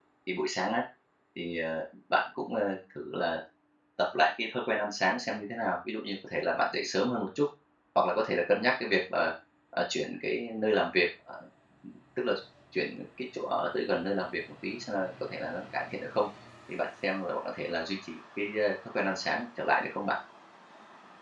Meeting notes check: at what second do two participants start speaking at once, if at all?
none

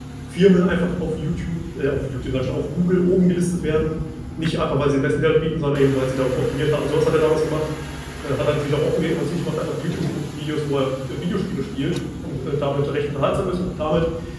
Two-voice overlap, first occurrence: none

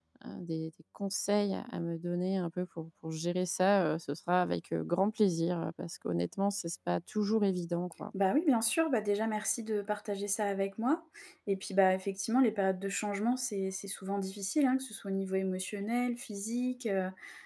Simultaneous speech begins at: none

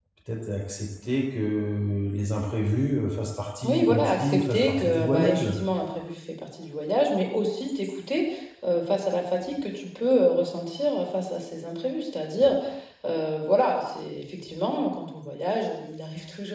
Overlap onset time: 3.6 s

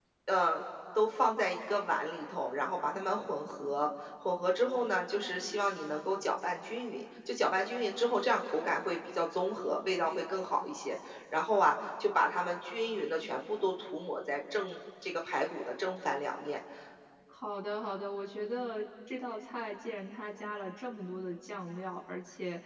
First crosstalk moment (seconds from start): none

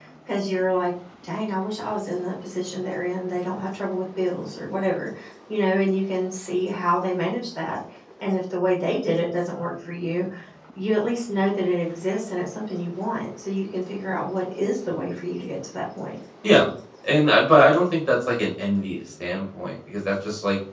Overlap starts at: none

